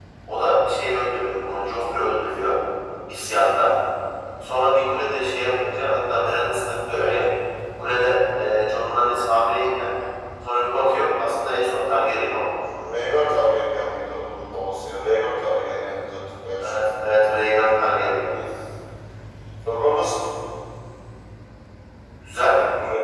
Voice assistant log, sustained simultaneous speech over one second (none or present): none